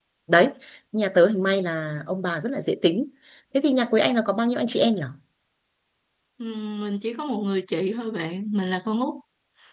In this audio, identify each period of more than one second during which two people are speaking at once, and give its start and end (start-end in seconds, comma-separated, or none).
none